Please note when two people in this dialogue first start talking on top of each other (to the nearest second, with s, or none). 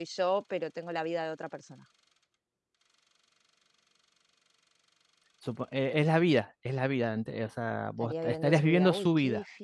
8 s